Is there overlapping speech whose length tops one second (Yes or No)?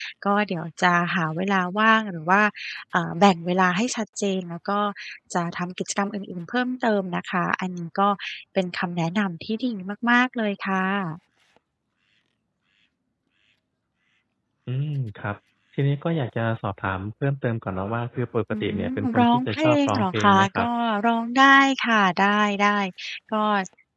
Yes